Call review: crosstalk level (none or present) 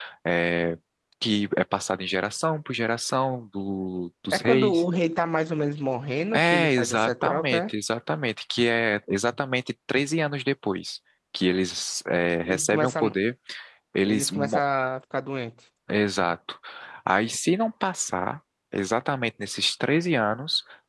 present